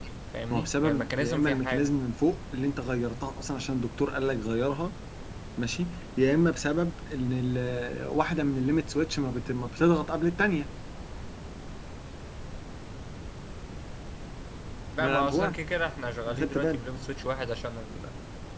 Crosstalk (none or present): present